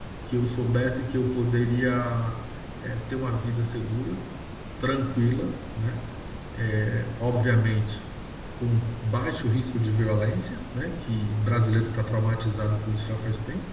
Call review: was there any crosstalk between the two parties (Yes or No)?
No